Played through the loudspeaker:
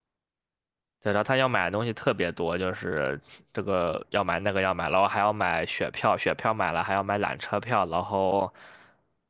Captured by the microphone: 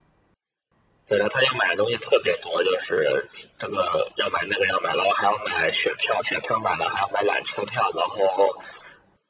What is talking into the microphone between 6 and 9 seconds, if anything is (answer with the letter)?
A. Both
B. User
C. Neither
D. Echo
D